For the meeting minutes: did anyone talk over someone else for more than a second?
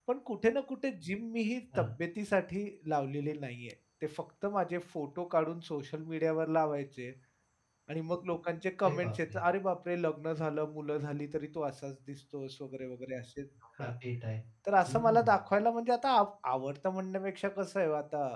No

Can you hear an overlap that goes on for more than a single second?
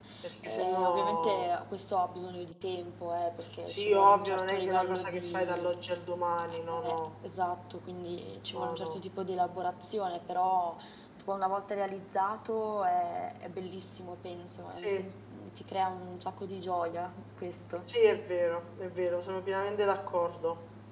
Yes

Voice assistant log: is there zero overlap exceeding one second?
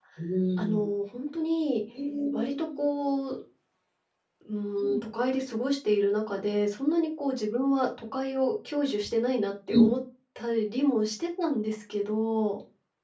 Yes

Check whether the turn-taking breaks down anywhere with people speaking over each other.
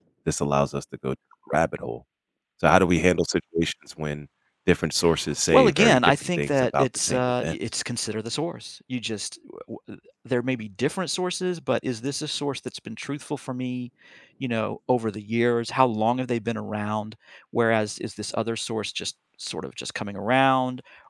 Yes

